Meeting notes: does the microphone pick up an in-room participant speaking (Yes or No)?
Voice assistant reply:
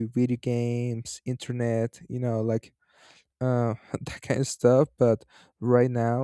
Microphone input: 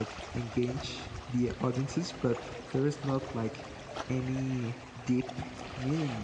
Yes